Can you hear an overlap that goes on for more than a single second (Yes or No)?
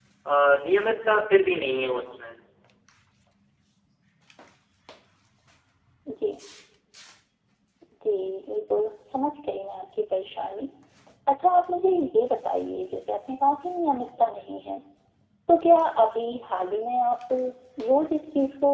No